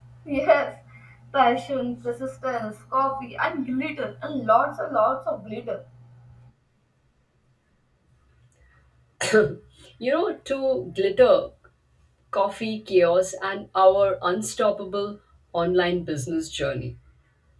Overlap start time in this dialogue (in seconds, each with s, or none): none